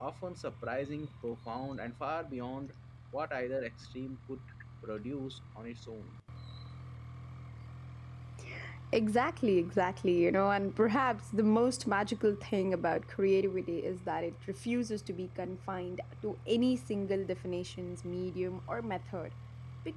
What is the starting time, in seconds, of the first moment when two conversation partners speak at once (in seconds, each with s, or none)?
none